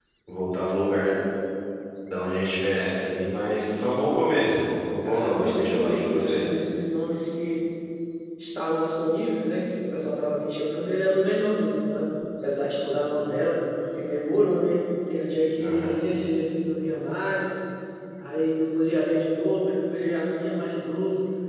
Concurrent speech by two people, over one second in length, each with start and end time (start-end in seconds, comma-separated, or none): 5.0-6.4